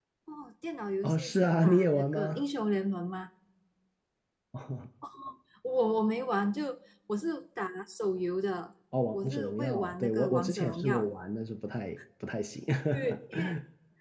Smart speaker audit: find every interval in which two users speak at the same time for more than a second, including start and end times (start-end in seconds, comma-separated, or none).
1.0-2.4, 9.1-11.0